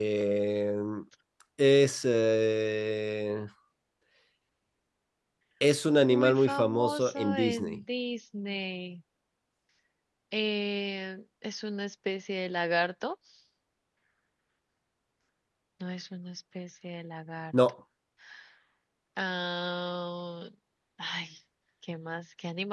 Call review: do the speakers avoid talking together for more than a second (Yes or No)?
No